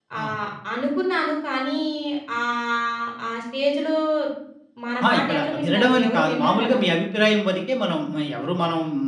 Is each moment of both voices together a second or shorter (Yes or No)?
No